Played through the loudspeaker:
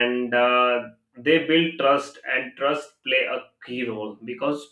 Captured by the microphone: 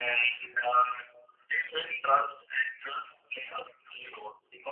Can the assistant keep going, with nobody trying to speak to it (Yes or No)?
Yes